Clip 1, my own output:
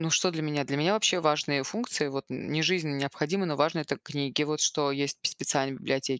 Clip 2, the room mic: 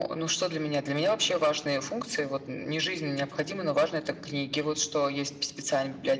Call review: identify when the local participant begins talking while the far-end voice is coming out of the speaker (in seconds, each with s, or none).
none